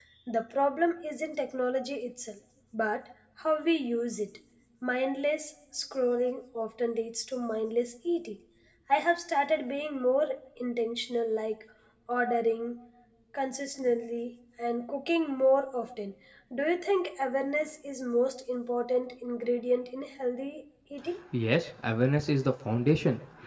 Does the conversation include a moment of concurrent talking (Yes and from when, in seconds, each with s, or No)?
No